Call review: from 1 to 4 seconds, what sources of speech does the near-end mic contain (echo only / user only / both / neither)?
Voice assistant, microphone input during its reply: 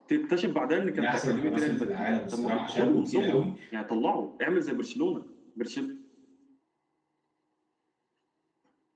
both